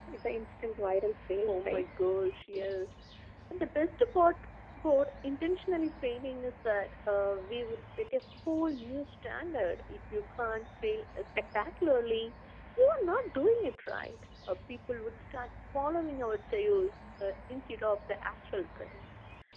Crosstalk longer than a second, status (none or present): none